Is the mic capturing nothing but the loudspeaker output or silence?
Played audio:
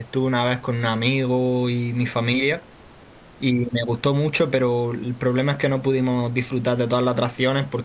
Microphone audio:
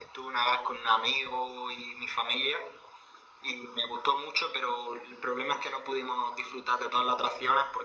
Yes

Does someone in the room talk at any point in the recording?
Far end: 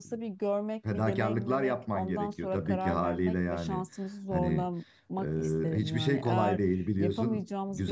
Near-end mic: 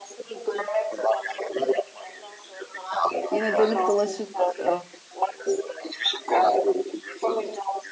Yes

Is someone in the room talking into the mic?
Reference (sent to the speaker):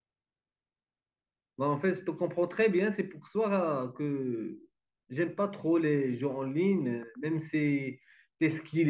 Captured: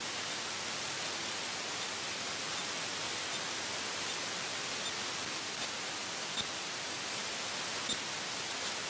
No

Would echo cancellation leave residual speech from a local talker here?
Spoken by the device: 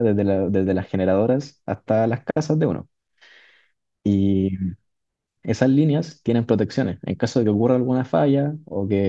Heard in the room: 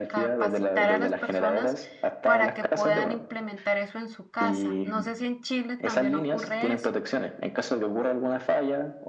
Yes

